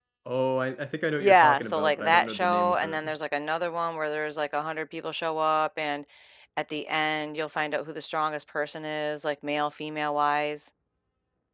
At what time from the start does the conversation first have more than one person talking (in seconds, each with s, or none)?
1.2 s